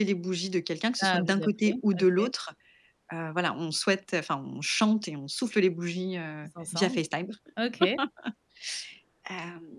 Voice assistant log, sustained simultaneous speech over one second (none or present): present